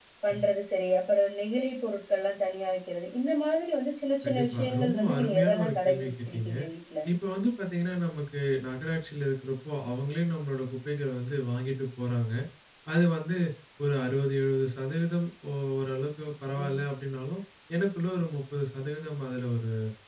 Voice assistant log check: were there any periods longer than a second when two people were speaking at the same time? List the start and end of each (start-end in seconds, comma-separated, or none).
4.2-6.5